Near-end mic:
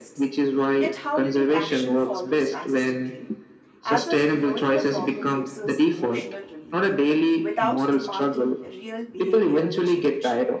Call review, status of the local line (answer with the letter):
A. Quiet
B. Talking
B